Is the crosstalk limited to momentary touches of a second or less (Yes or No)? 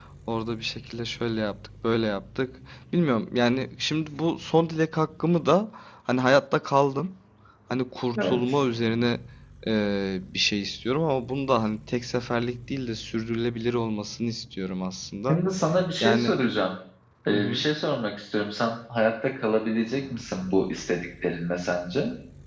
Yes